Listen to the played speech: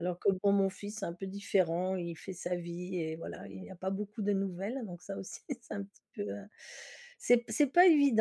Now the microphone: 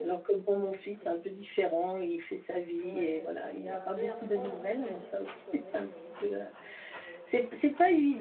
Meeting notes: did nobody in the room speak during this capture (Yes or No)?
No